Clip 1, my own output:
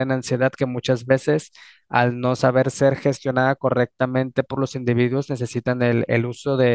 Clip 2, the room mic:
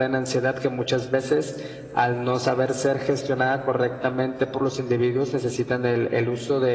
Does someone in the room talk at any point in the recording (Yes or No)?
No